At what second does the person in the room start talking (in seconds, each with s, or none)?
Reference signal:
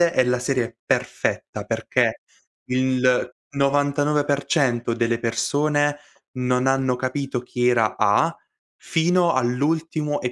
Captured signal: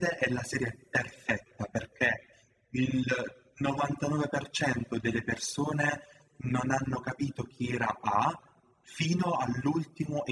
none